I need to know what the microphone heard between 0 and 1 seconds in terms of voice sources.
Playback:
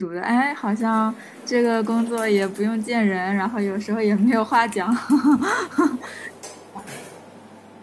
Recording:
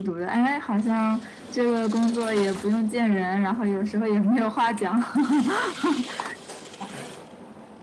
echo only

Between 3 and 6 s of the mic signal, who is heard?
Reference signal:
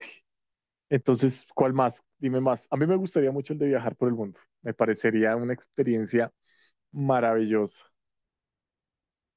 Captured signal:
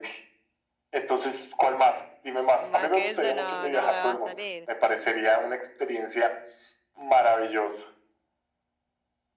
both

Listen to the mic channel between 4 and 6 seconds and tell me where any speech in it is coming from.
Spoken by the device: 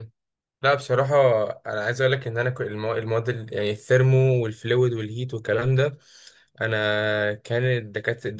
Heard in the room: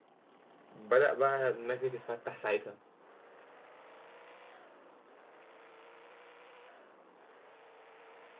neither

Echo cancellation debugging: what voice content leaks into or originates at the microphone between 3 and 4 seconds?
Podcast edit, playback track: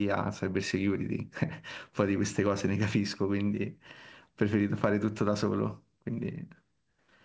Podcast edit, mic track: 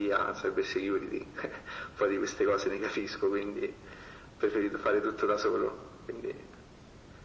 echo only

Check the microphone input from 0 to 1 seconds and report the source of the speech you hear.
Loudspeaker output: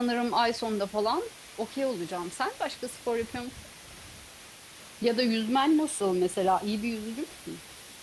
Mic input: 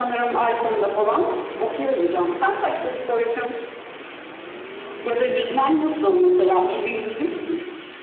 echo only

